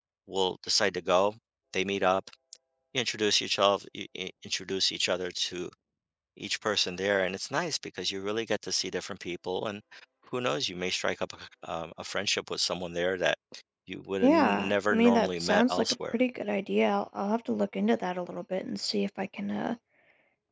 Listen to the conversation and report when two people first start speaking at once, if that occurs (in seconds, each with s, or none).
14.2 s